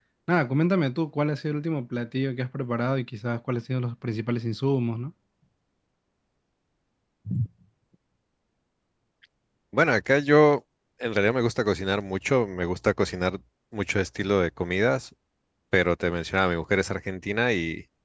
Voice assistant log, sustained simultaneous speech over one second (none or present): none